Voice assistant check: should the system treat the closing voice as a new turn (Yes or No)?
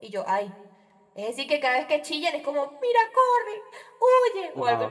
Yes